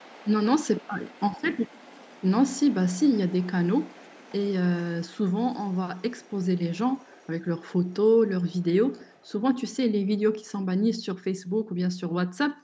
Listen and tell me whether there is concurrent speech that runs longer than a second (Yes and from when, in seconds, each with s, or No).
No